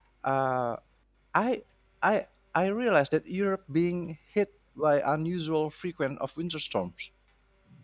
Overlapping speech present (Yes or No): No